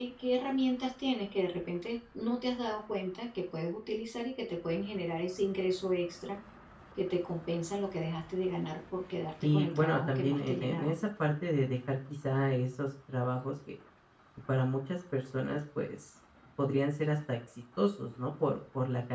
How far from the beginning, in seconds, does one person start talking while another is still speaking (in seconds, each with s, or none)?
9.4 s